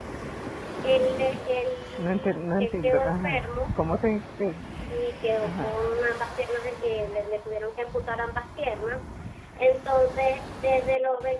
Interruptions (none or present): present